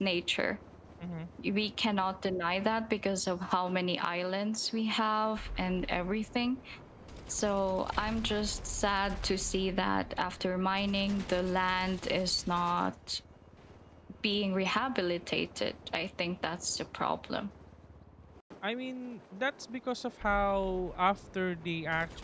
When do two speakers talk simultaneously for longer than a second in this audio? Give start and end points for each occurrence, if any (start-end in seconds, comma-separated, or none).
none